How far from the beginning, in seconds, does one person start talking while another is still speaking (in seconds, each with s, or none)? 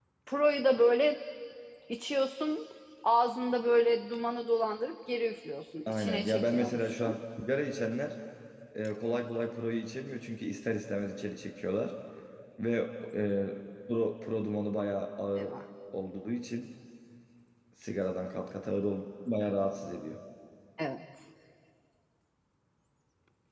5.9 s